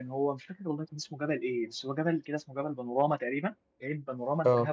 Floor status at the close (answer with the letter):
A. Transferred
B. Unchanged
B